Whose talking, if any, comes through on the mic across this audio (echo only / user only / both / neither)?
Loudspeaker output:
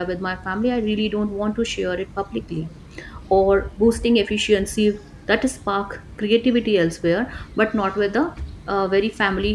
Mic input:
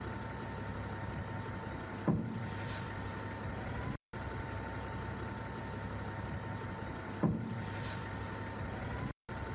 neither